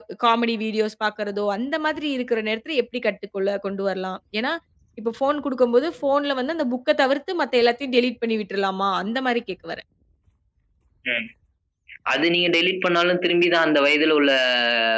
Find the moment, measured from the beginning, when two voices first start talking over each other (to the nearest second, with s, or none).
none